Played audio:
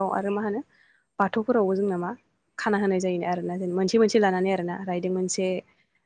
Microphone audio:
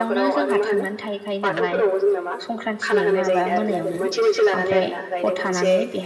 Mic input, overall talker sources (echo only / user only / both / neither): both